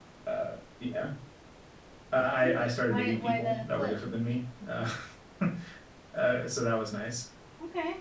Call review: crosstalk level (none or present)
present